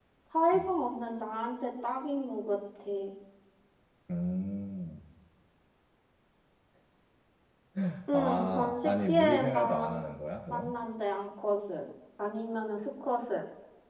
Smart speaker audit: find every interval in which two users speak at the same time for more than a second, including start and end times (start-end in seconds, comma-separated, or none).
8.1-10.0